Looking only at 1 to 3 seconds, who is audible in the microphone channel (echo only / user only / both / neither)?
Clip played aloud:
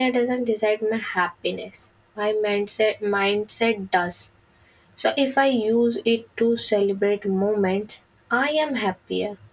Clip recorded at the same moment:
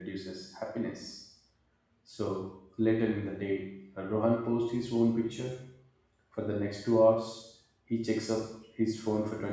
user only